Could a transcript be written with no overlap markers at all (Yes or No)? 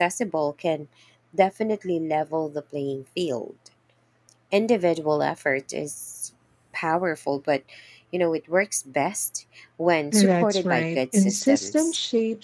No